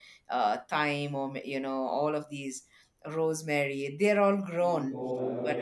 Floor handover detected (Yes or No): Yes